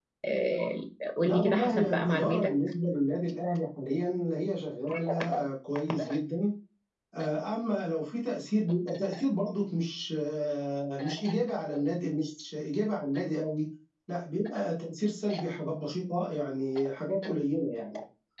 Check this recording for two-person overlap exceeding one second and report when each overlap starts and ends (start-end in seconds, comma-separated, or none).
1.2-2.5